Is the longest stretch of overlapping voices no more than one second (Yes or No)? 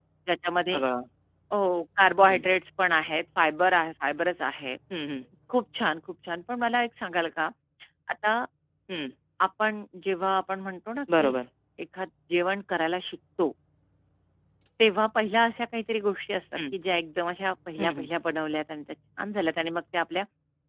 Yes